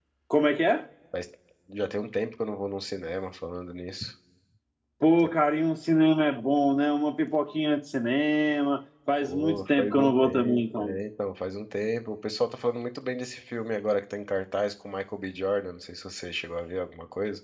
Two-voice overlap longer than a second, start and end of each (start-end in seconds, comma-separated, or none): 9.2-10.9